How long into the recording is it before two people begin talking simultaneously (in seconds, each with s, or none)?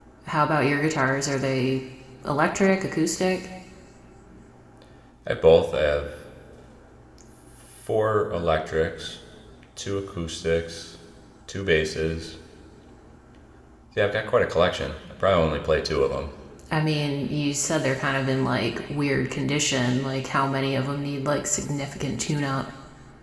none